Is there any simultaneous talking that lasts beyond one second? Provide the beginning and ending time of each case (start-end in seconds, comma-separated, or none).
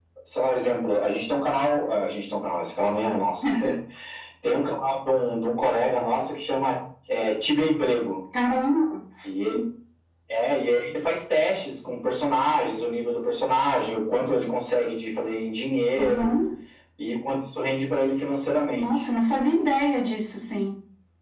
none